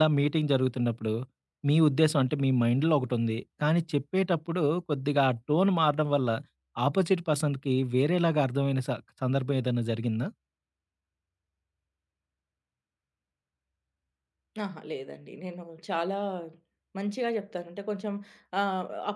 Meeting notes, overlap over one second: none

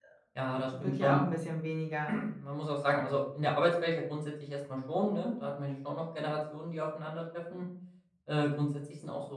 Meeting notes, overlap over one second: none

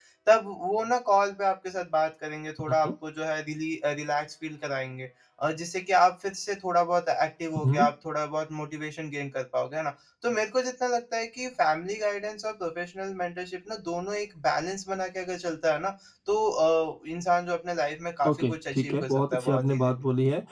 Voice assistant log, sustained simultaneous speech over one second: present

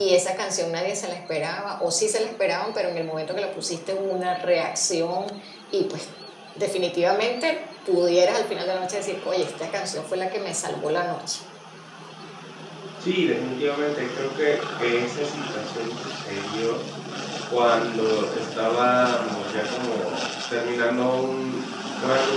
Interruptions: none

